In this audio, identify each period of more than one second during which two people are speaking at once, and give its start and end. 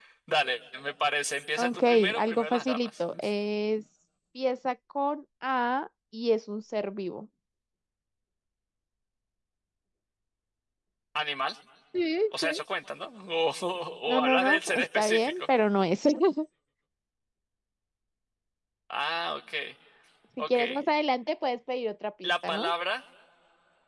1.6-3.0, 14.1-15.4

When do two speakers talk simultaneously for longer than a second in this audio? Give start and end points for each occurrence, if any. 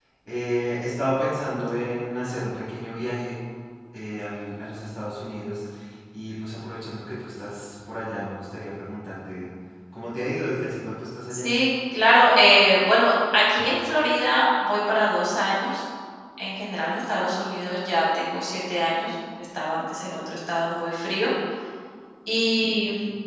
none

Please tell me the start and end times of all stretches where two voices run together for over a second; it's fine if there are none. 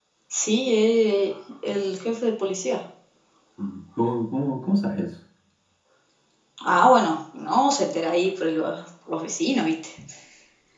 none

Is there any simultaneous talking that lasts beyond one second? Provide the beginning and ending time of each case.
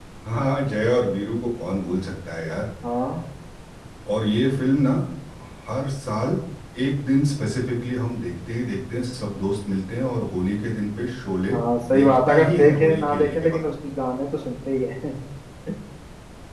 12.0-13.5

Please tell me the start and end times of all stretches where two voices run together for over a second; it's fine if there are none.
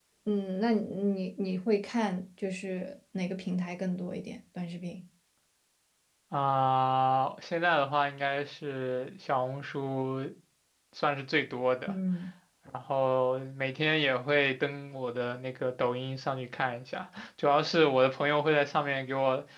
none

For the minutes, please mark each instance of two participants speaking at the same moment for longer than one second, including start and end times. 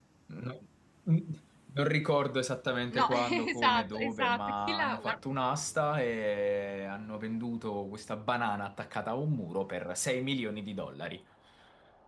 2.9-5.2

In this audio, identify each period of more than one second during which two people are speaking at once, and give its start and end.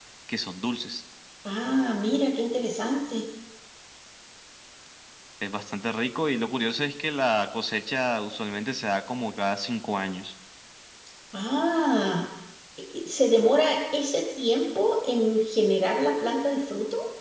none

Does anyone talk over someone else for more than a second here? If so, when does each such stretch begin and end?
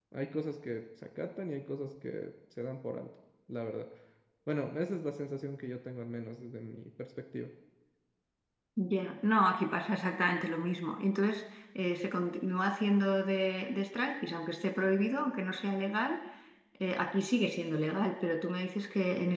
none

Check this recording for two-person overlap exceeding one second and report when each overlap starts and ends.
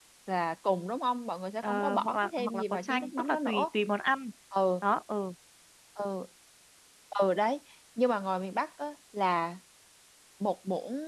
1.6-3.6

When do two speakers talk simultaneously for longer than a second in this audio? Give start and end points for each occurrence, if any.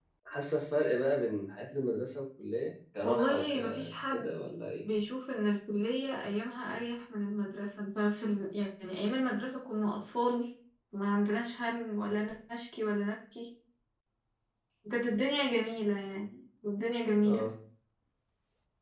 3.0-4.3

